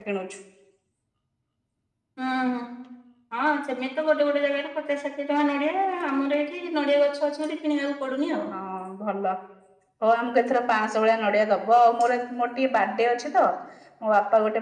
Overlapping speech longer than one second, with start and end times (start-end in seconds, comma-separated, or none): none